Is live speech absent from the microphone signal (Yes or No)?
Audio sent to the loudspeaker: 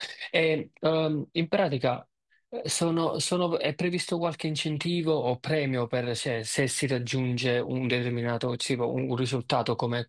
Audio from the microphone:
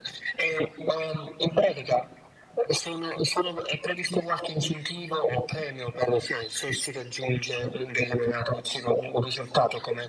Yes